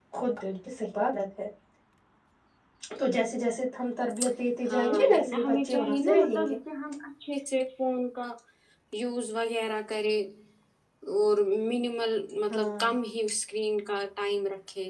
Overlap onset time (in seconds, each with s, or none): 4.7 s